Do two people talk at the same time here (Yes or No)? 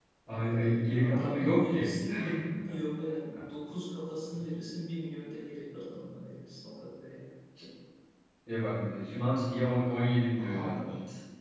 Yes